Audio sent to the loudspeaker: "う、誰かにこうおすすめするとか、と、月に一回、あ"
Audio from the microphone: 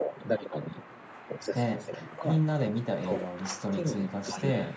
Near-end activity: present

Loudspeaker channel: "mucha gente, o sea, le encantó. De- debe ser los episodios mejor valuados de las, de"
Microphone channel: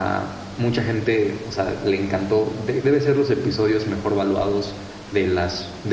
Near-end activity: none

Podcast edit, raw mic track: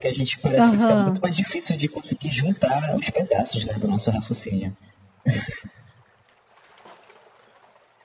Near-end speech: present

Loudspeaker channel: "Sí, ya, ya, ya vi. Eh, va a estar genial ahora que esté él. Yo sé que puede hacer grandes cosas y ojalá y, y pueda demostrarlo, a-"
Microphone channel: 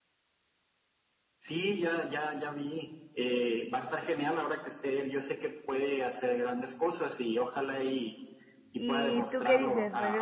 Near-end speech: present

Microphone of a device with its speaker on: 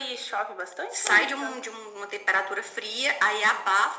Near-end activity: none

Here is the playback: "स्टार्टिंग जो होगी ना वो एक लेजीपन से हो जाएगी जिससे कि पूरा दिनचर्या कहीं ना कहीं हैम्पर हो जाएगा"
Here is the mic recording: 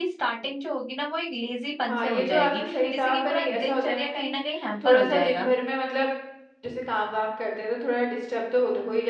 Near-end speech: present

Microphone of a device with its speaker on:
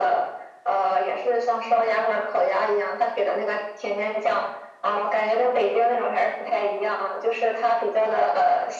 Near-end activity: none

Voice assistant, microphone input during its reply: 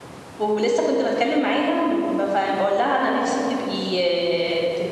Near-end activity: present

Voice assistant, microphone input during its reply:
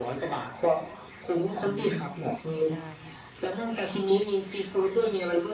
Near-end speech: present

